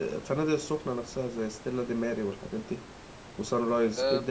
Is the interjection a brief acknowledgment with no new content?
No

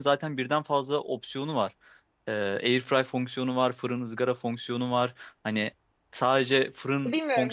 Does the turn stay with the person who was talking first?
No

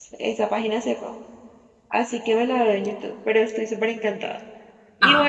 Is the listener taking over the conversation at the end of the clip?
No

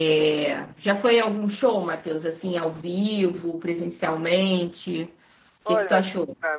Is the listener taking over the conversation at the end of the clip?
Yes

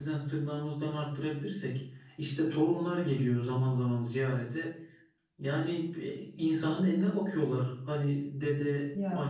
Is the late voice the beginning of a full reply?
No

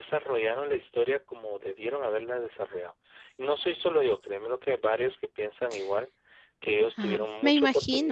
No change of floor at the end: No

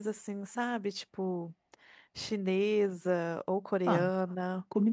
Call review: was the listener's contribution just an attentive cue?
No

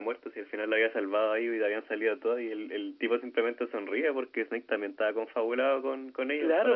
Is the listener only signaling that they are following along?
No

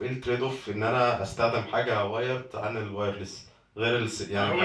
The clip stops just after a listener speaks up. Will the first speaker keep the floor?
Yes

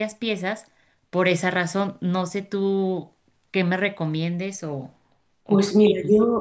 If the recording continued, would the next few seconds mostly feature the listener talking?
Yes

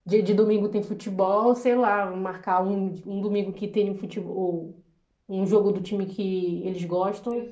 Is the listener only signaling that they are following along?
Yes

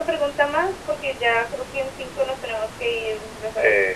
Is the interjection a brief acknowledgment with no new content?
No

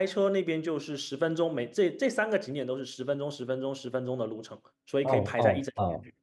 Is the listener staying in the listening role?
No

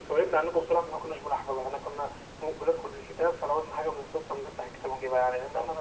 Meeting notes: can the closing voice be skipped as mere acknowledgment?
No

